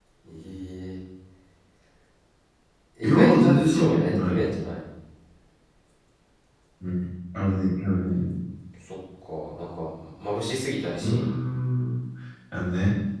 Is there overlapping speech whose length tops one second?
Yes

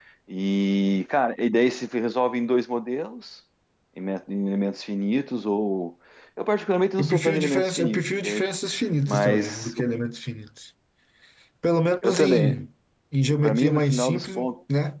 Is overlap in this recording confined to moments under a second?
No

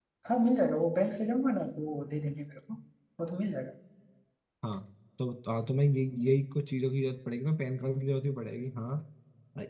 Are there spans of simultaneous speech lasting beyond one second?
No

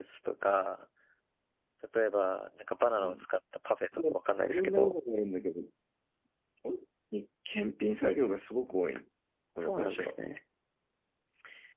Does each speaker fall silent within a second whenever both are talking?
Yes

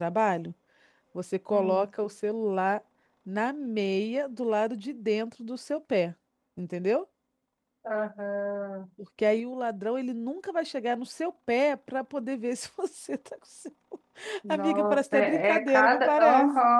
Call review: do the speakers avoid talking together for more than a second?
No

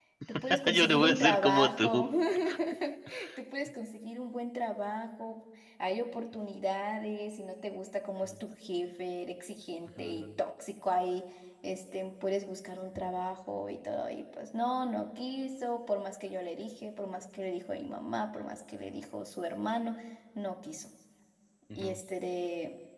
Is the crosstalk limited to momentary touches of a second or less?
No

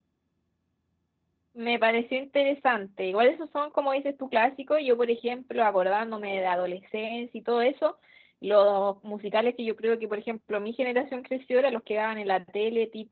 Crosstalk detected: No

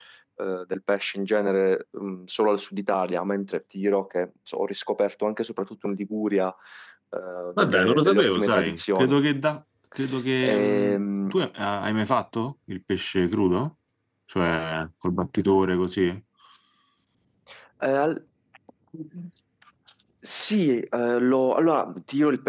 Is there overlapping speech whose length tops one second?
Yes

